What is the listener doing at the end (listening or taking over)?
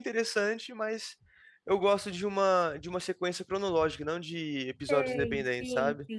taking over